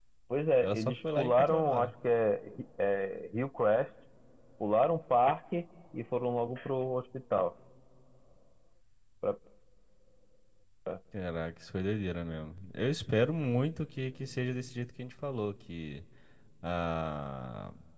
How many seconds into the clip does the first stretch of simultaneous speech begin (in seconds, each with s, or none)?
0.6 s